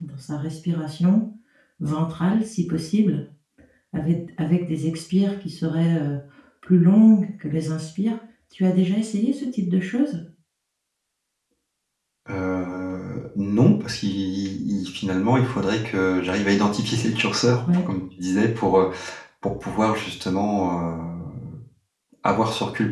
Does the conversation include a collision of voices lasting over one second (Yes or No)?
No